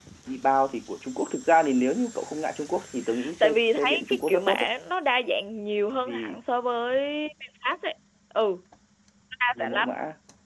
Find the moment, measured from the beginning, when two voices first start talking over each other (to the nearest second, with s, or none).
3 s